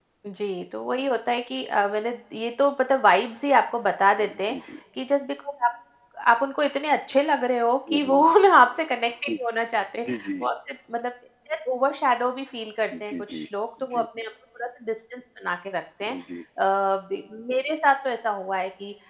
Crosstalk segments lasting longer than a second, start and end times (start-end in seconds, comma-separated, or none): none